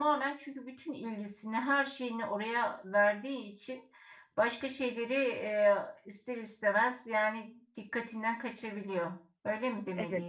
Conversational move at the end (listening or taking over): taking over